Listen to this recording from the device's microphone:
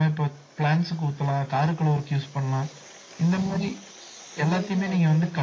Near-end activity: present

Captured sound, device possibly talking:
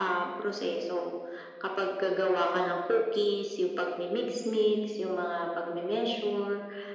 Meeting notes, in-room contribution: none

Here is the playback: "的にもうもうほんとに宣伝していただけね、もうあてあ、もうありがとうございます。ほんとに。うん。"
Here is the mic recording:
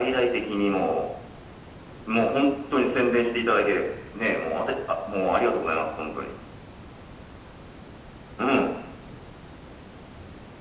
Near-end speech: none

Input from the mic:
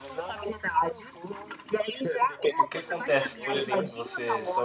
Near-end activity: present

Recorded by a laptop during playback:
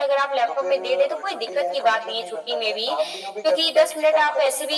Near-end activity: none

